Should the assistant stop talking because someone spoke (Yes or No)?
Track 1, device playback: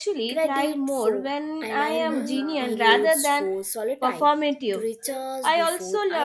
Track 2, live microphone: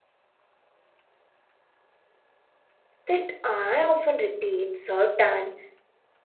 Yes